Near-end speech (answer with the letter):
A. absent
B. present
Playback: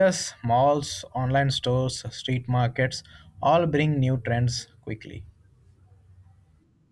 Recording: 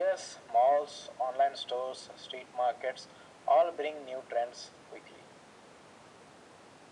A